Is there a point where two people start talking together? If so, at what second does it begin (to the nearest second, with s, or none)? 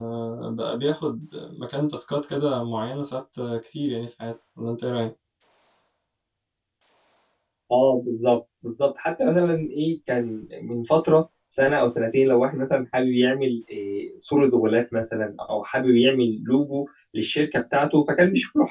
none